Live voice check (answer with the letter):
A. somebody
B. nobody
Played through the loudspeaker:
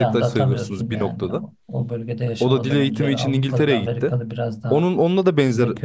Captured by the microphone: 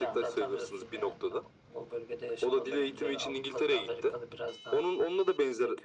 B